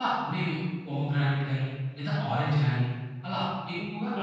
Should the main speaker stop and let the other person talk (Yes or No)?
Yes